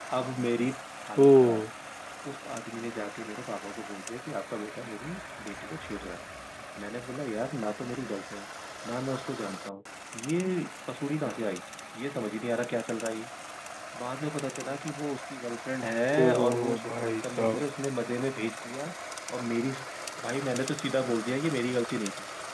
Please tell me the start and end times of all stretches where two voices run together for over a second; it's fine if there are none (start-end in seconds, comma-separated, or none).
16.2-17.6